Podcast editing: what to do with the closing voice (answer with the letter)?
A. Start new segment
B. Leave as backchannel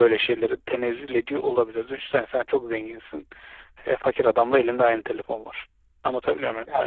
A